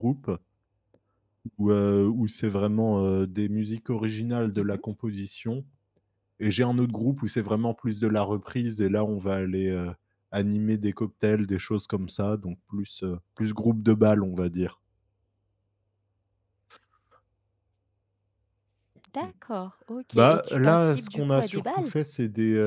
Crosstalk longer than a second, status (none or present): present